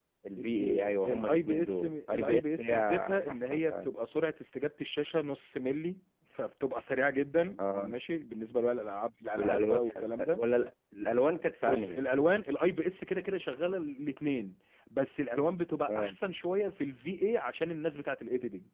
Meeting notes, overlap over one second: present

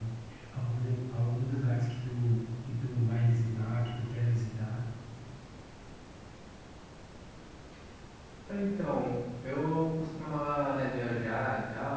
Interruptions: none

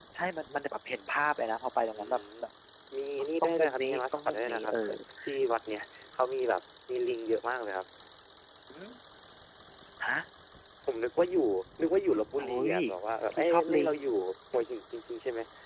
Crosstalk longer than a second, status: present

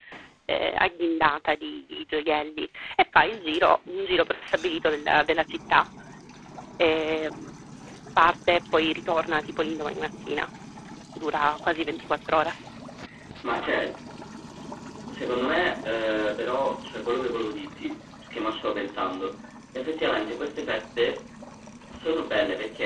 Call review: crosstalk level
none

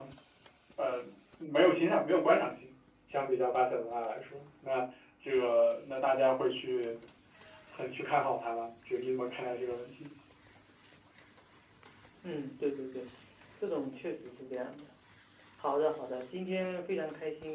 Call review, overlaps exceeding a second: none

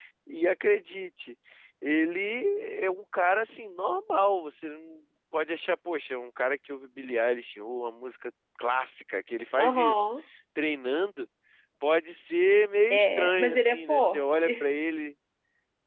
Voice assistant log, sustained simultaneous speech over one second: present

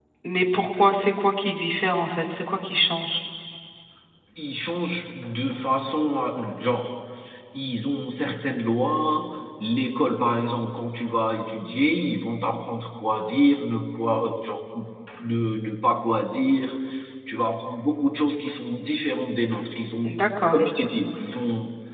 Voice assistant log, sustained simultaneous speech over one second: none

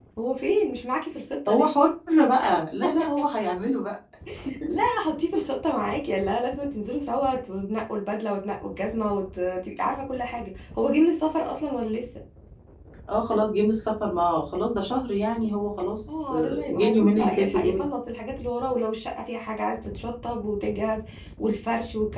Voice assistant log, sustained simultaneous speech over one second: present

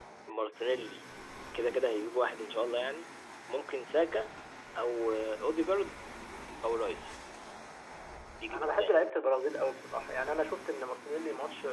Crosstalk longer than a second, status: none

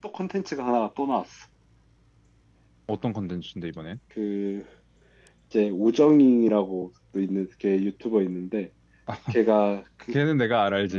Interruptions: none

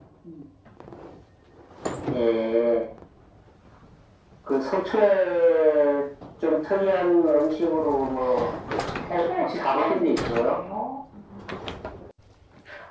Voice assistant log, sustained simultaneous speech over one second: present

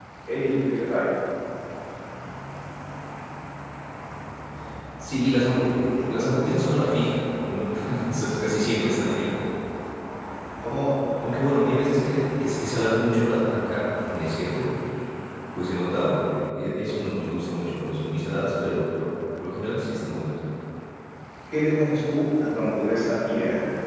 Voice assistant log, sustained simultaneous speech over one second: none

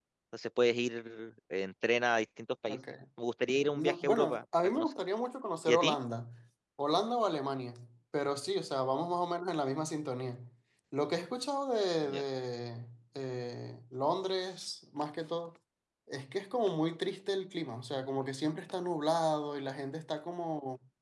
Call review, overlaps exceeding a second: present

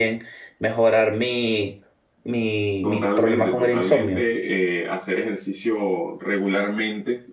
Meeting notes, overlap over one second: present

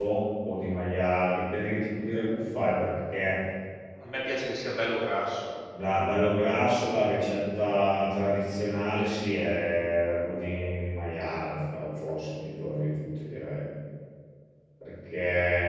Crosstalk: none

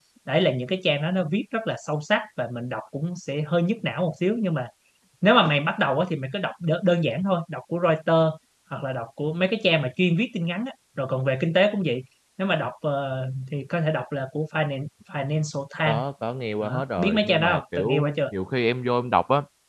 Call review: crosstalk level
present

